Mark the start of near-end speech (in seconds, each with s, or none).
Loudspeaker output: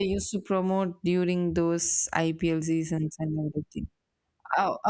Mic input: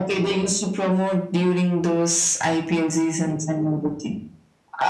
none